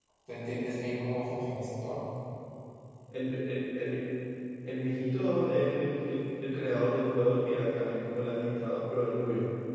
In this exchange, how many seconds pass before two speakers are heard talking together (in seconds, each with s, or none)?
none